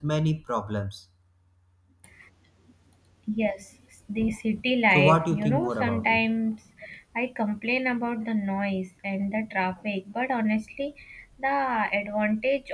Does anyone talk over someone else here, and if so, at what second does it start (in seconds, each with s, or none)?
4.9 s